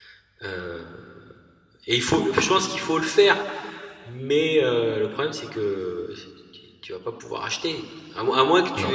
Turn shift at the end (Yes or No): No